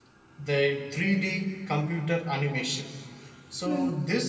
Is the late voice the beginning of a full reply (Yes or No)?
No